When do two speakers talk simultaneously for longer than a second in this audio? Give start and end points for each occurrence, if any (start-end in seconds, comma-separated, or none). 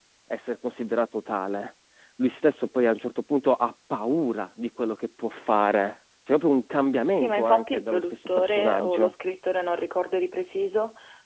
7.2-9.1